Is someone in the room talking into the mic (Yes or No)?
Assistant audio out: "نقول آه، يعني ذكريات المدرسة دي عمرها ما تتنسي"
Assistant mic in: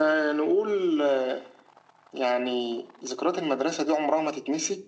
No